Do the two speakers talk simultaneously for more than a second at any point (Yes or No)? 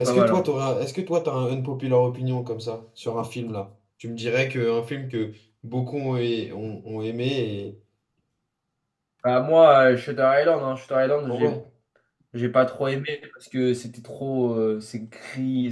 No